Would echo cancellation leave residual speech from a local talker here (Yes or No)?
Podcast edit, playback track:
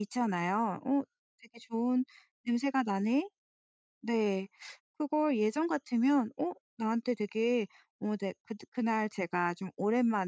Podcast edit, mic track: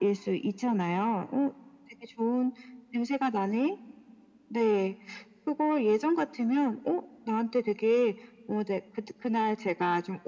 No